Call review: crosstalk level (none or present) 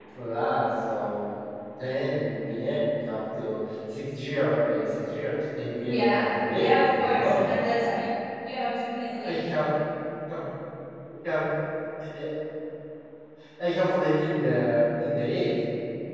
present